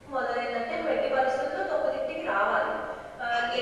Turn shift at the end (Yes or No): No